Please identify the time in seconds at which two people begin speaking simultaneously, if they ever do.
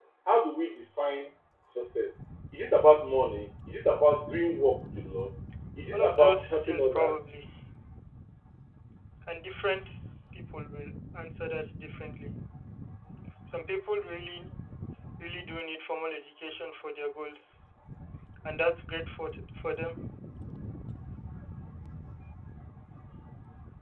5.9 s

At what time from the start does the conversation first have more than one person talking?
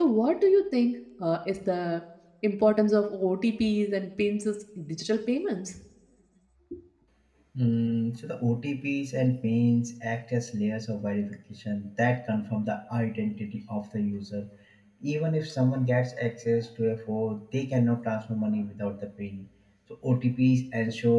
none

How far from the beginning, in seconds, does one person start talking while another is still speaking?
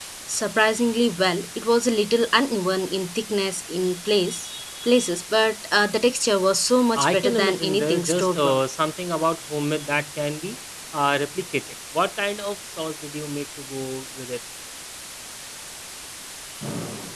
7.0 s

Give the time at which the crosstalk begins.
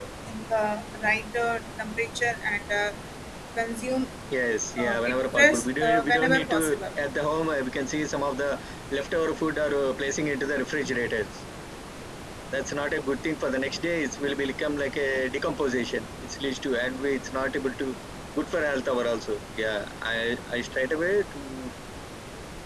4.8 s

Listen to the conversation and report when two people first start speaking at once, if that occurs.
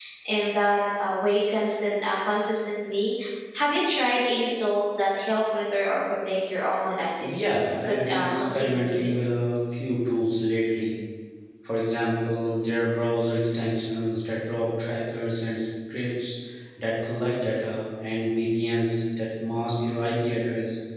7.5 s

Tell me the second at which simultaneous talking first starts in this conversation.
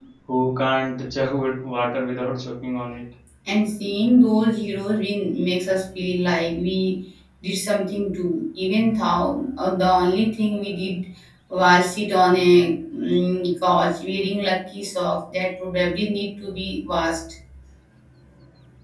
none

